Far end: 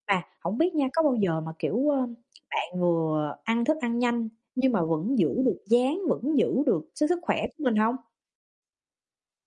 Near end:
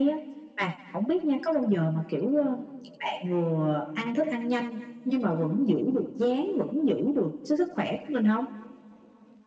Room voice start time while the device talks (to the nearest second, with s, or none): none